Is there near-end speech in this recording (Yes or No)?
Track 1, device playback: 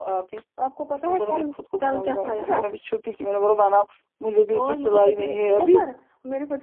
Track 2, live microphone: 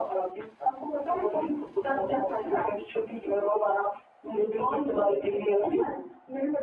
No